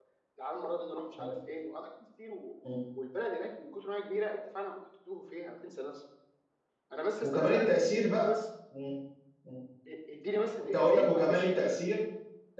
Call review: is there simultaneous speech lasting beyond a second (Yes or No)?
Yes